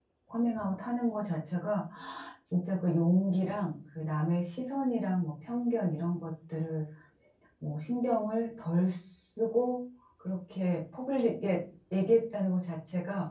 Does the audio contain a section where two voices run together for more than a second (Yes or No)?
No